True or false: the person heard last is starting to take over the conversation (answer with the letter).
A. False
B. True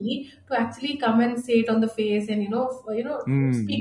B